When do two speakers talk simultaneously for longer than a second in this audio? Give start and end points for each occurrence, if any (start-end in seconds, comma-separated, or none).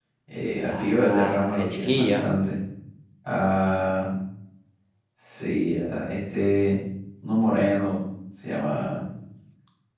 0.7-2.2